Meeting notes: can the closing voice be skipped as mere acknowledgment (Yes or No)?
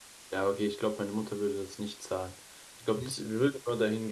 Yes